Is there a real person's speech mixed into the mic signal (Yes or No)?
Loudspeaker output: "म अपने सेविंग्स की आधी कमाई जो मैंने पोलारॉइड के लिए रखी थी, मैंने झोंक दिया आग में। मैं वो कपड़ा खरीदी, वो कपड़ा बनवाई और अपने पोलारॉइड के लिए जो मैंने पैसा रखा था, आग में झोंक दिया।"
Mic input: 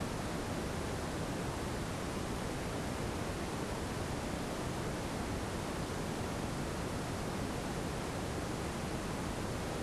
No